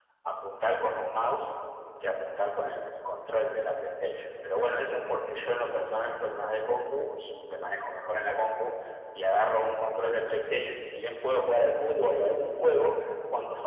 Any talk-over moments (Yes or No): No